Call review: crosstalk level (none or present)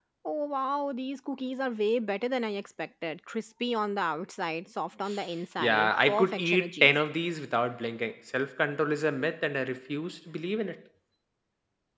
present